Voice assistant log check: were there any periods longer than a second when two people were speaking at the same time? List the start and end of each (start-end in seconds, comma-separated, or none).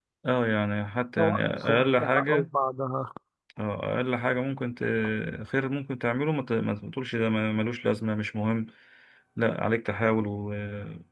1.2-2.5